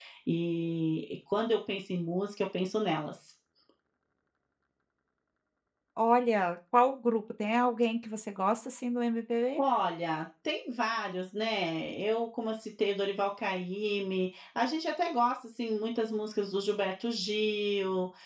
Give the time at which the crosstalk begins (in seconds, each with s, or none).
none